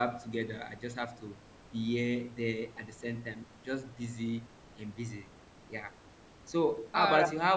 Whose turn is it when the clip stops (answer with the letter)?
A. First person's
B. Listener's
A